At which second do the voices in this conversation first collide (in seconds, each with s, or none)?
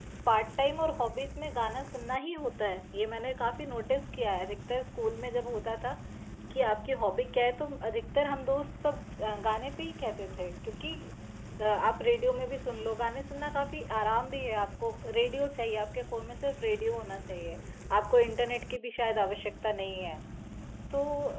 none